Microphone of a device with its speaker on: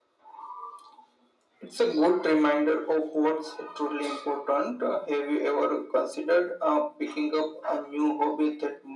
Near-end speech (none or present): none